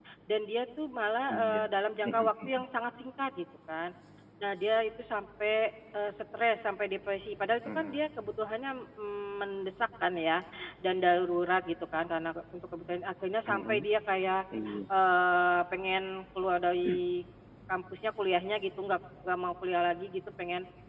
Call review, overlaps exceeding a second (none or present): none